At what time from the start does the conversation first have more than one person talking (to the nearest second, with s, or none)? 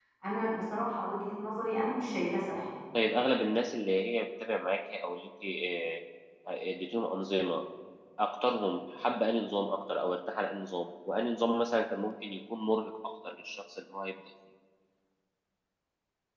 none